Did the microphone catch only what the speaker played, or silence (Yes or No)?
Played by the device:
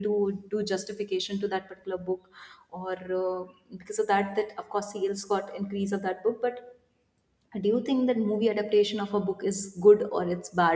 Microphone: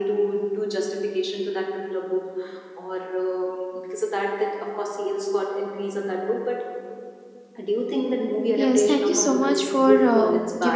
No